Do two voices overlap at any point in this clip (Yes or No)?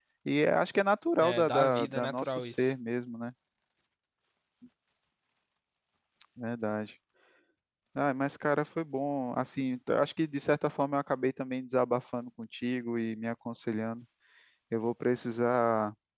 Yes